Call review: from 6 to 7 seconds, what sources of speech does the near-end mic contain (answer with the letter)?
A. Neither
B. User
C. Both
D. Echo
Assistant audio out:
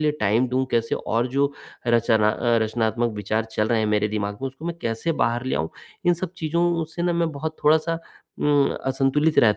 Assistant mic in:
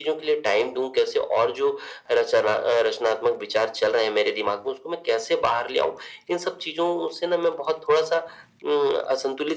D